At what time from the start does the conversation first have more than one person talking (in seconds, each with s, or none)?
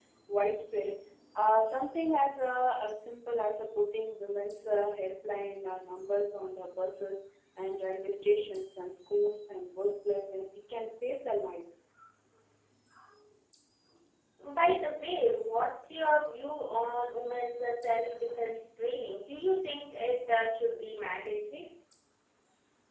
none